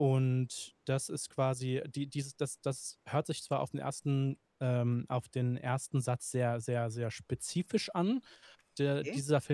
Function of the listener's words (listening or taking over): listening